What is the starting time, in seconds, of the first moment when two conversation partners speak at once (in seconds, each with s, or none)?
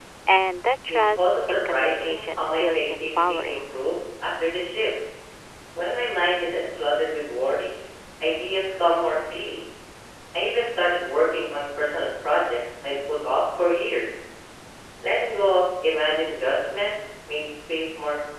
0.9 s